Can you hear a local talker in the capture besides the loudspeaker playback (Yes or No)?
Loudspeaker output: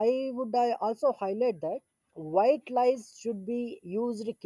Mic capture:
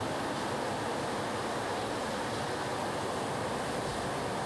No